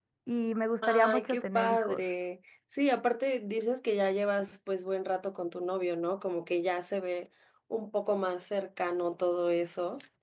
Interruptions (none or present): present